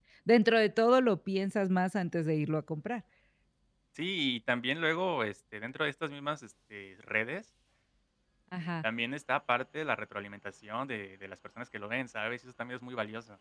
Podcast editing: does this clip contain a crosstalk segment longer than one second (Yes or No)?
No